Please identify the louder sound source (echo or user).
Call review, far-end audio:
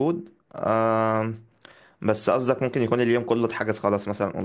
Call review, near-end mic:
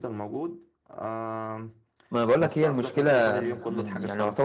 user